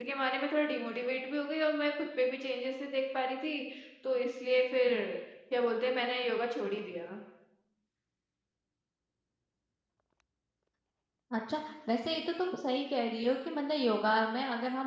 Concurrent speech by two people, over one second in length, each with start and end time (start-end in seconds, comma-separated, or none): none